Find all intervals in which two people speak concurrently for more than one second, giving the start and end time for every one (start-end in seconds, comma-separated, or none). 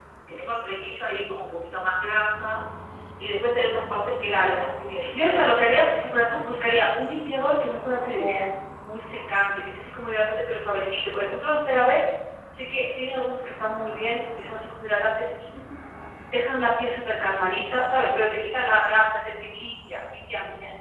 5.1-6.5